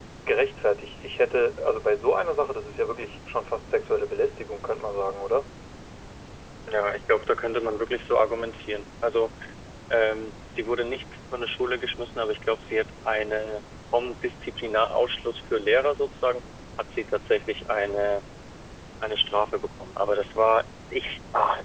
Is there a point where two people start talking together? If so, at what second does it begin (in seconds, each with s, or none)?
none